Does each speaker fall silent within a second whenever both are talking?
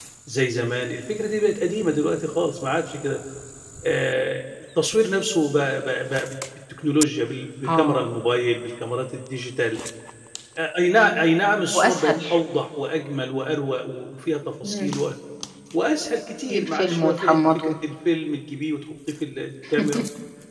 No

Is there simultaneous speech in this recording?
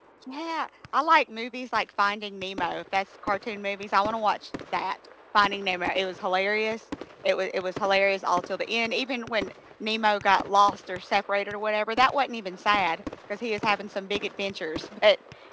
No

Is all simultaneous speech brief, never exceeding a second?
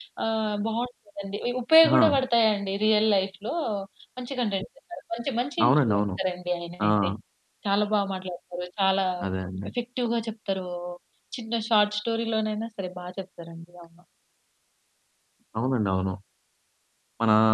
Yes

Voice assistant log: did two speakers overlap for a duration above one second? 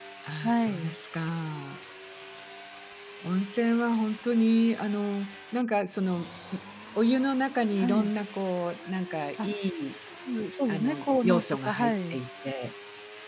Yes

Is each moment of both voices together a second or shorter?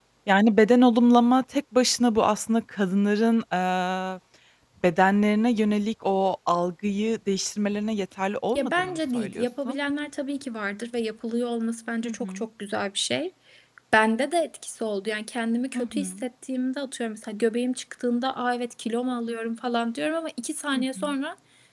No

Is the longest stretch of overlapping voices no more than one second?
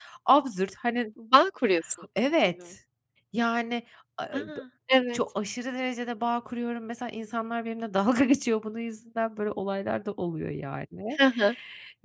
Yes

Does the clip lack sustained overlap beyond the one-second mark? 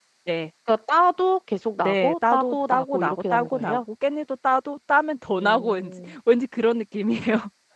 No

